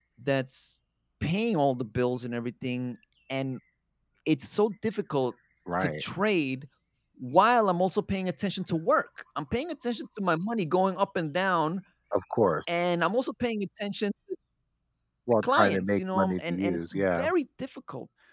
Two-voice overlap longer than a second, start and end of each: 15.4-17.3

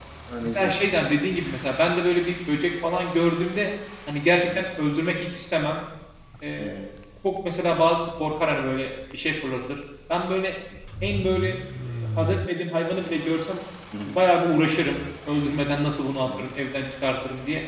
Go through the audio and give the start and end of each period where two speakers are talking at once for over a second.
none

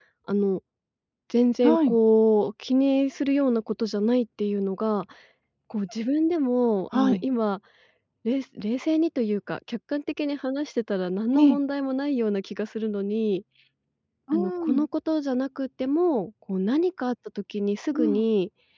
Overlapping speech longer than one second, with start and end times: none

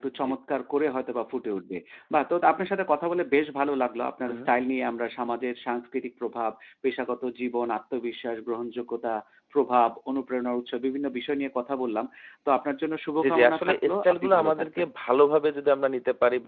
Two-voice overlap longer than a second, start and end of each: 13.2-14.9

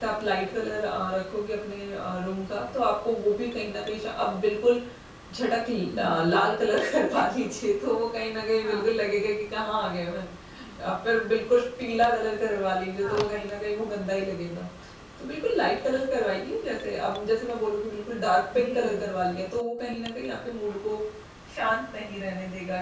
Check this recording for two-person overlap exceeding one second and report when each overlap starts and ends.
none

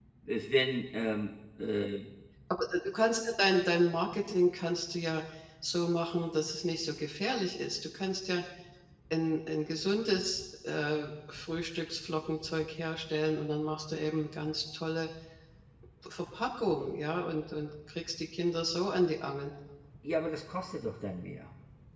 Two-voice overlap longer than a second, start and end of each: none

